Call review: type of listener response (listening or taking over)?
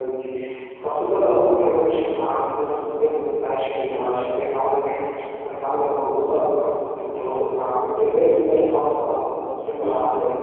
taking over